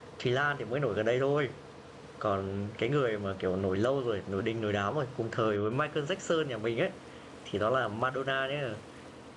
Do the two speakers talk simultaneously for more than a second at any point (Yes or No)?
No